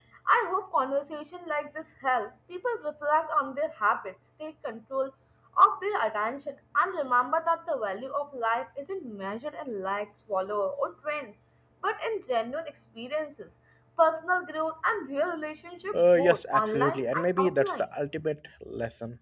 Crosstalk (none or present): present